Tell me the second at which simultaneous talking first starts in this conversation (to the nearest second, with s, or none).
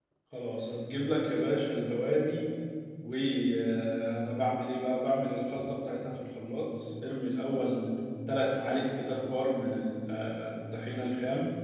none